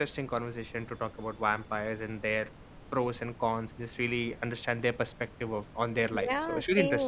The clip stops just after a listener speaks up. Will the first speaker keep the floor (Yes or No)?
No